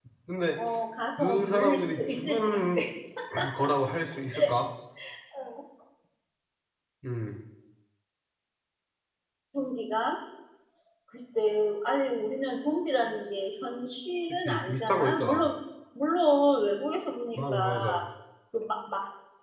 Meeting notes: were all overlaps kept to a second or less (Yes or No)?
No